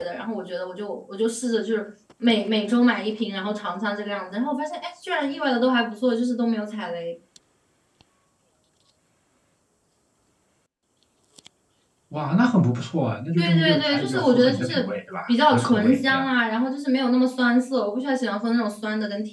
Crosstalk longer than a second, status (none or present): present